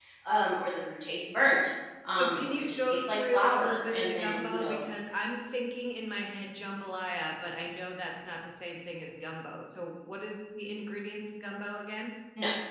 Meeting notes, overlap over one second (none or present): present